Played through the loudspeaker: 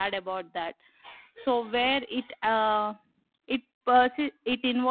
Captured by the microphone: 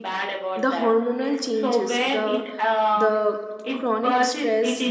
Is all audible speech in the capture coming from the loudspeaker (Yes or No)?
No